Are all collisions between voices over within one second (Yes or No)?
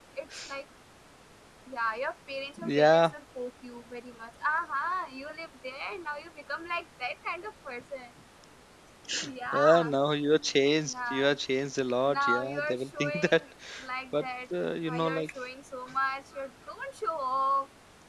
No